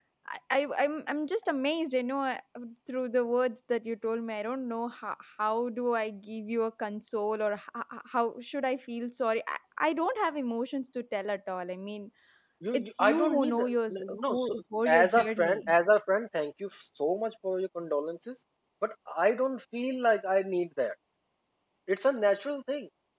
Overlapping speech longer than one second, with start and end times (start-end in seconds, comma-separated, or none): 12.7-15.7